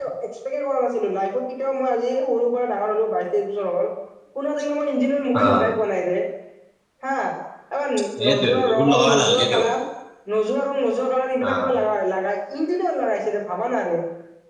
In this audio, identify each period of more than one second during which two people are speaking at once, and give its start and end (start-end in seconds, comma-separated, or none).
8.3-9.6